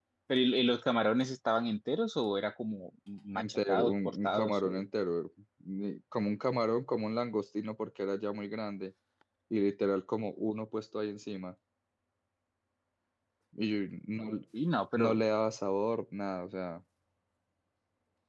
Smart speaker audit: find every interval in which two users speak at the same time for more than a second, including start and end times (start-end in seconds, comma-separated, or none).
3.4-4.8